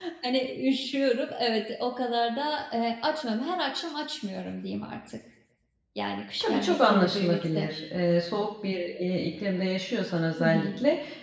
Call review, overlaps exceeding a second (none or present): present